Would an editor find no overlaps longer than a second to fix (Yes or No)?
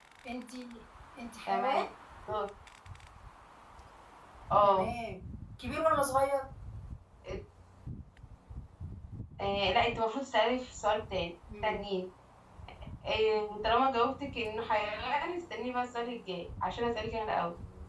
Yes